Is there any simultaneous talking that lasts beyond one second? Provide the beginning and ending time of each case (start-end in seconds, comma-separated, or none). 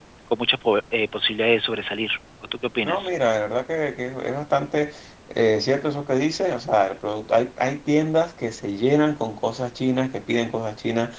none